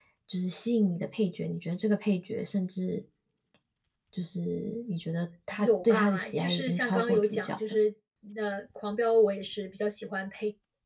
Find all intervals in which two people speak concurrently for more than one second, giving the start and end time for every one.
5.6-7.8

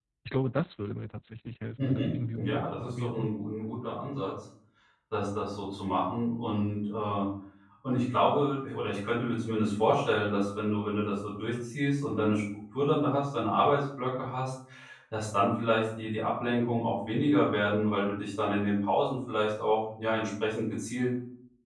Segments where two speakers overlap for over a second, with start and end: 1.8-3.3

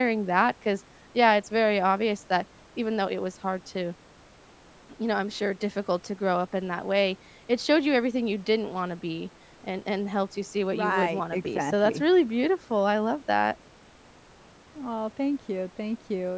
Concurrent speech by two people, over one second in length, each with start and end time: 10.7-12.0

